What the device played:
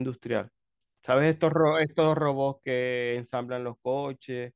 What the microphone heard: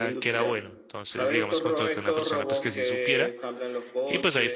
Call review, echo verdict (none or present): present